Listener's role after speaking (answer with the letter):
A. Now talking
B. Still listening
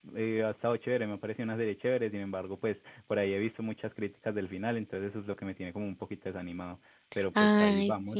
A